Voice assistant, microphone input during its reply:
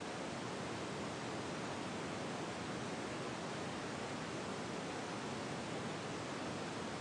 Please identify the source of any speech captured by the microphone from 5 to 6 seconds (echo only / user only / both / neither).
neither